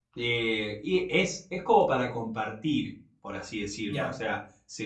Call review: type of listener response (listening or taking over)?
listening